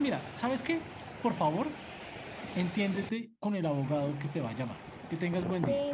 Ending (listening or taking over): taking over